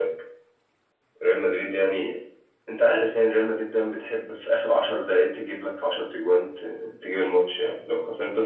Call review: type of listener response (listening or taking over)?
listening